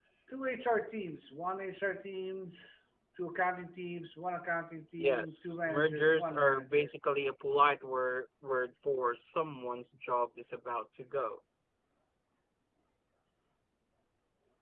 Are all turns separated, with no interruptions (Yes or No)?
No